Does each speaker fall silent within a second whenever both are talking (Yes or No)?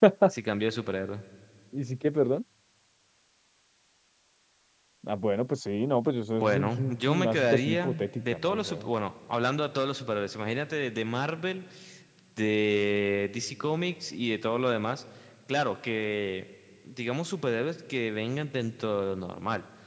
No